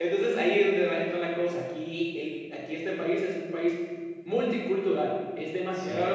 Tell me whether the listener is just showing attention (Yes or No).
Yes